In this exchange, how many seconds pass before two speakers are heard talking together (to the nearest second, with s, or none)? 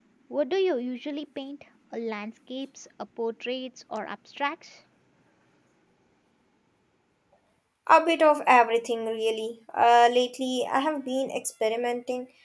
none